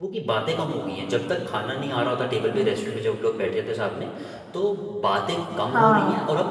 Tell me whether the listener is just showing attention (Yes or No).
Yes